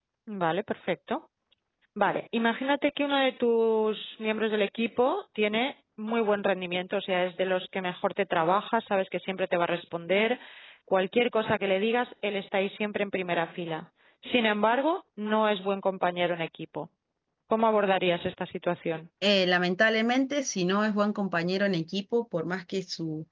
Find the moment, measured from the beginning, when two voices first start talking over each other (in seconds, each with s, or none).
none